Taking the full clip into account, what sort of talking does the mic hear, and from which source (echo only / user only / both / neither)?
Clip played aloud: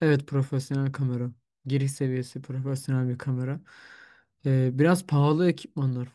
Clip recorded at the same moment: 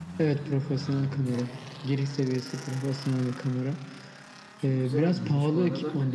both